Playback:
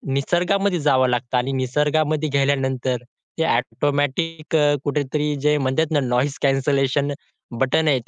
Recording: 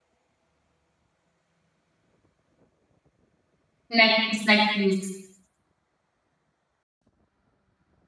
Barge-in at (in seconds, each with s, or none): 4.0 s